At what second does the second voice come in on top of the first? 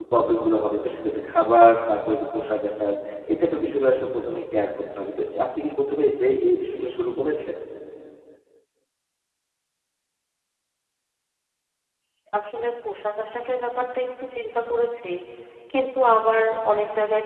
none

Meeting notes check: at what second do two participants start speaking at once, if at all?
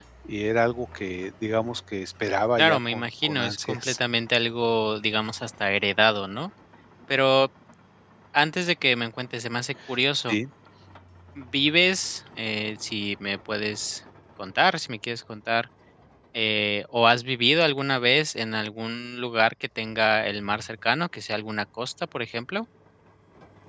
2.6 s

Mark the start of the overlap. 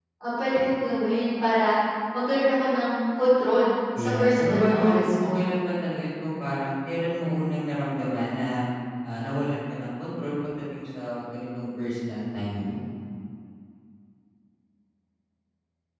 4.0 s

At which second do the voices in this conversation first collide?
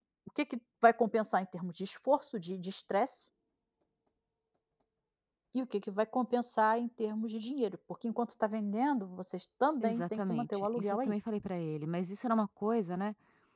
9.8 s

